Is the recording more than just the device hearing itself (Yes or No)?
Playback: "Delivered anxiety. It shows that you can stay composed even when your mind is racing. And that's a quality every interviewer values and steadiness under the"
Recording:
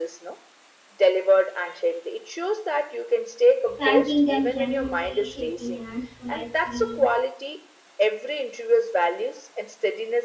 Yes